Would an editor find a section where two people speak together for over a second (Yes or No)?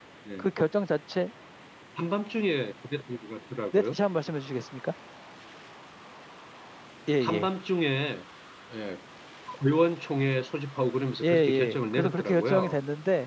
Yes